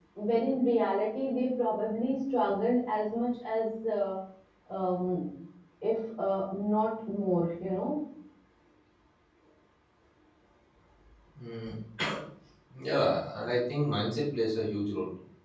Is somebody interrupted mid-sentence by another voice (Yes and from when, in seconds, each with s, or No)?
No